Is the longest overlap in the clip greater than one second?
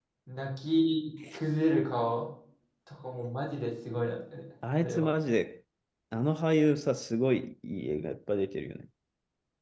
No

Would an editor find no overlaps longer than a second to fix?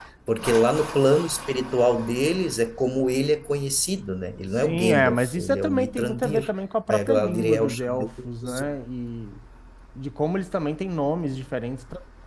No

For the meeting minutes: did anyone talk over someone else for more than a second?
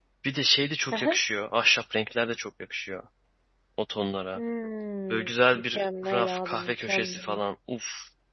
Yes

